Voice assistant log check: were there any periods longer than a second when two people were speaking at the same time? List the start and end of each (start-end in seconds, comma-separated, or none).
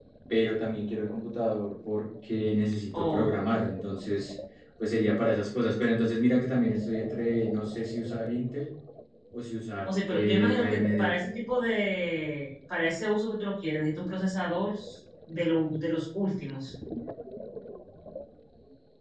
9.9-11.1